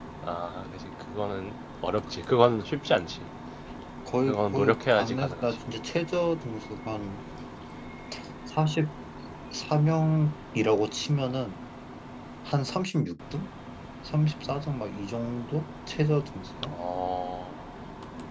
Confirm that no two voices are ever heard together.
No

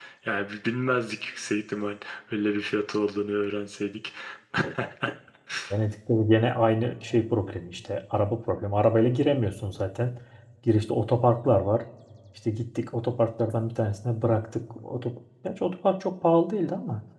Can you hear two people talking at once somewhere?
No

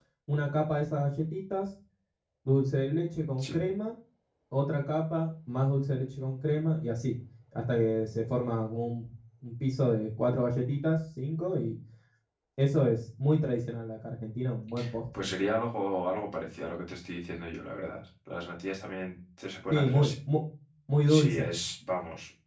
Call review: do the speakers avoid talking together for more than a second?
Yes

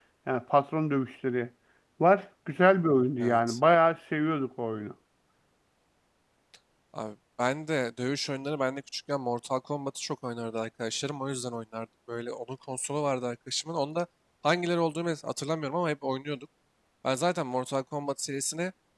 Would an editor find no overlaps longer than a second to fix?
Yes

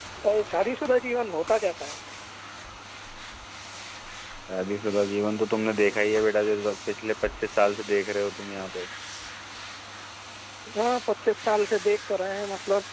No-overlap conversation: Yes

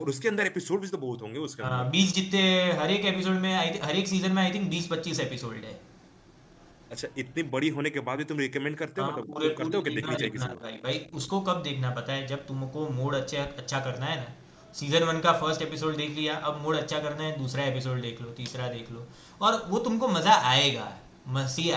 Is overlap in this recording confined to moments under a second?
No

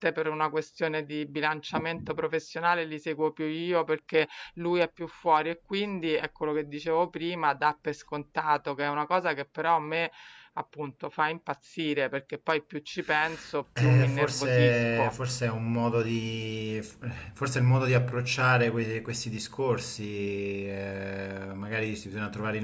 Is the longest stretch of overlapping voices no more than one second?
No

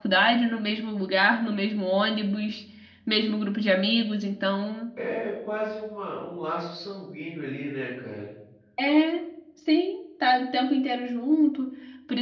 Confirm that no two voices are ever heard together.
Yes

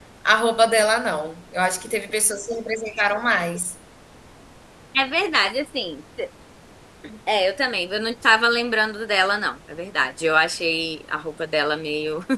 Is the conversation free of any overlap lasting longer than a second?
Yes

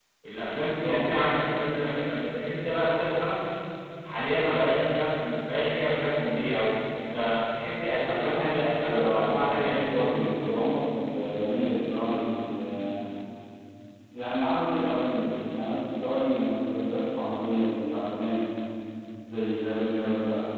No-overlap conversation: No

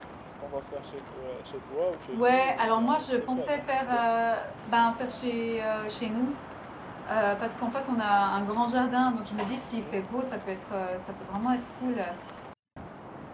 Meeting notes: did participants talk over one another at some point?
Yes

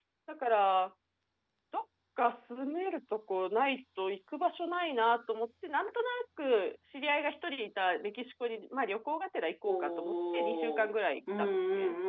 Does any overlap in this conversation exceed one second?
Yes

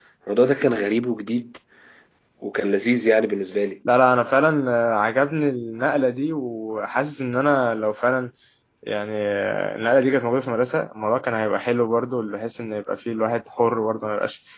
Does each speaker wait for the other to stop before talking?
Yes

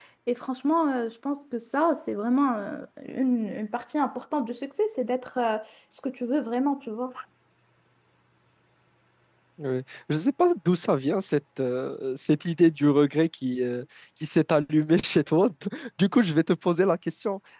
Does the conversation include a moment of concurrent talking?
No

